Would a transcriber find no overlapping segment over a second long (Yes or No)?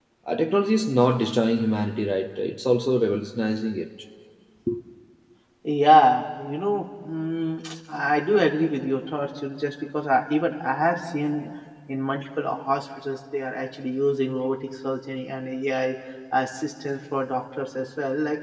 Yes